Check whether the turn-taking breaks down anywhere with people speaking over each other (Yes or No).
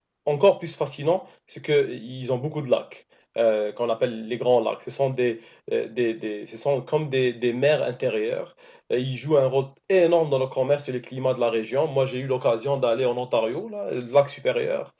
No